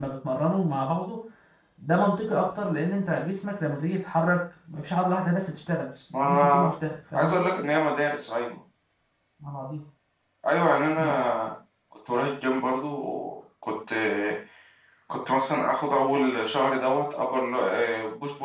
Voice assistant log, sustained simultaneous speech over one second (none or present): none